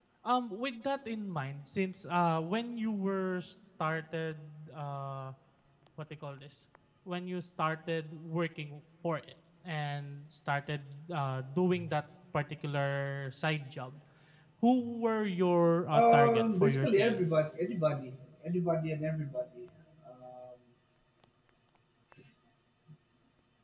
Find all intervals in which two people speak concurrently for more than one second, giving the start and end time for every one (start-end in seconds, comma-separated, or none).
15.9-17.5